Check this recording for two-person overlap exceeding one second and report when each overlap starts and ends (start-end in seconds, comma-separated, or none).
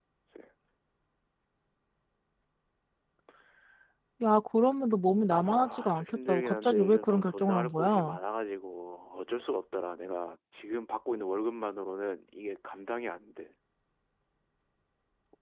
5.6-8.2